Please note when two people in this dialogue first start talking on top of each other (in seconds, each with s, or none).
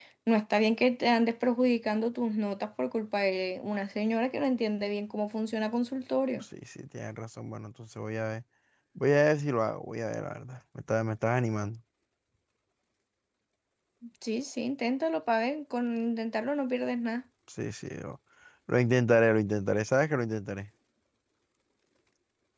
none